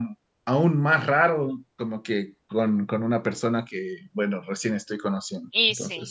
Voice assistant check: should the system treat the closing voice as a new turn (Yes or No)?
Yes